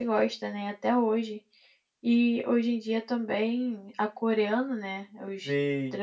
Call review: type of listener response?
listening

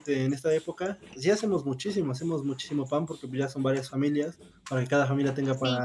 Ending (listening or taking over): listening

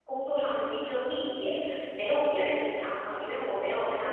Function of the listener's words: listening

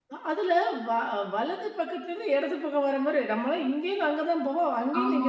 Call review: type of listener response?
taking over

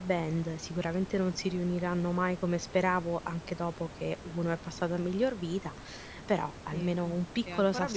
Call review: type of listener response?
taking over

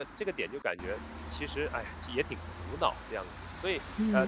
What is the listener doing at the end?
taking over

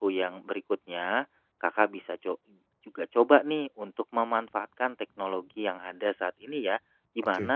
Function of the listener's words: listening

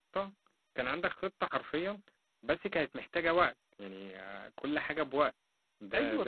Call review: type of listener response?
taking over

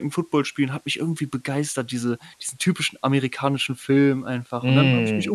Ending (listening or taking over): taking over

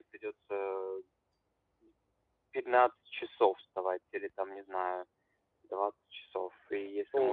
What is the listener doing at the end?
taking over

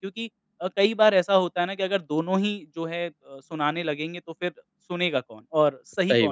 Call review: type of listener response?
listening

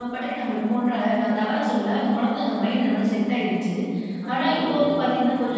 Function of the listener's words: listening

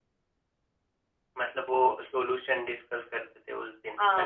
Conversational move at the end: taking over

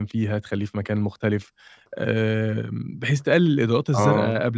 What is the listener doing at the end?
listening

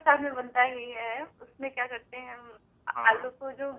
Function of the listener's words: listening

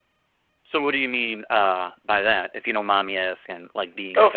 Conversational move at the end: taking over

